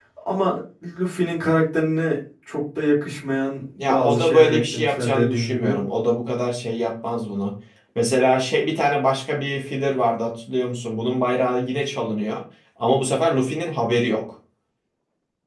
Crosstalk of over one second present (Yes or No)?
Yes